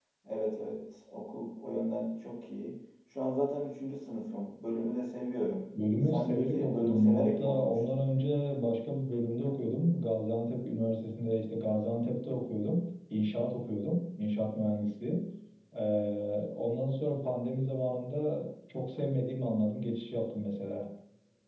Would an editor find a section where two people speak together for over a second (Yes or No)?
Yes